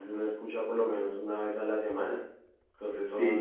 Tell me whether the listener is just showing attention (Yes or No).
No